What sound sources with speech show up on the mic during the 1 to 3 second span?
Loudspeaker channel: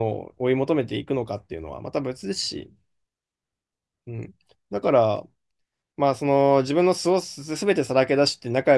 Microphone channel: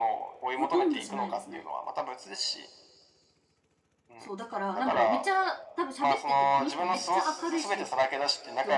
both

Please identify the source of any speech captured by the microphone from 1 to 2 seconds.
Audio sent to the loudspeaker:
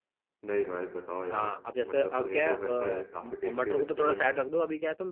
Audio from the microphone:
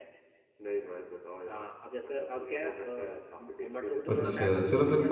echo only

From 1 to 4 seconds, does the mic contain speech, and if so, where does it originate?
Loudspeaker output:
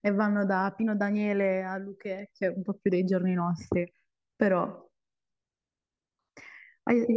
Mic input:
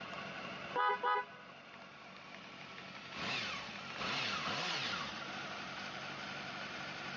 neither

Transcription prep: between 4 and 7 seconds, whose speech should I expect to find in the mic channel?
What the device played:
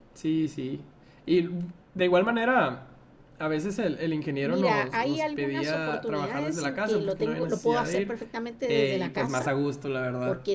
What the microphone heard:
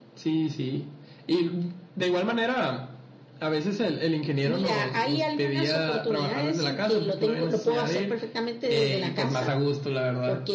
echo only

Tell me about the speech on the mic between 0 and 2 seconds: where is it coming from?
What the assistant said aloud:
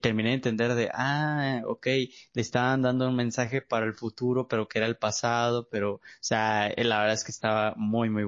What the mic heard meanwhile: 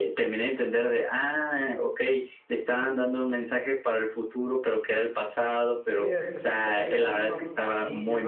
echo only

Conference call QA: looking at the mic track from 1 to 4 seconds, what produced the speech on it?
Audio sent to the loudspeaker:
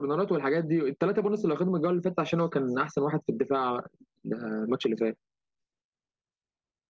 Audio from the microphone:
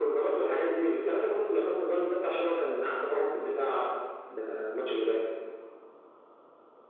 echo only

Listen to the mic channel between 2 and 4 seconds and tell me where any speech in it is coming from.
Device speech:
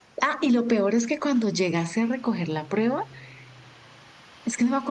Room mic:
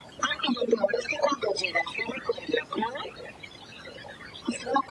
echo only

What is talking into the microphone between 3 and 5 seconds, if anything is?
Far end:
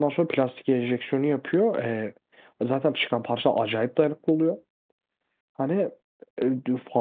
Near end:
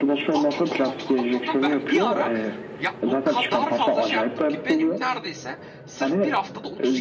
both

